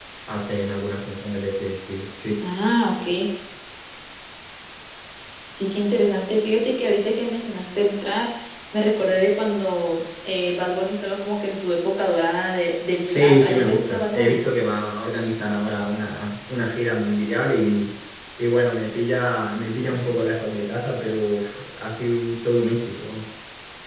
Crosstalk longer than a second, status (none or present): present